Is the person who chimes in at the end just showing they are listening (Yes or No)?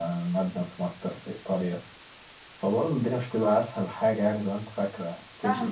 No